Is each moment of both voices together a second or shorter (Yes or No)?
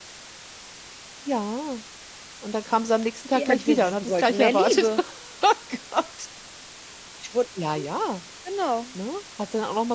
No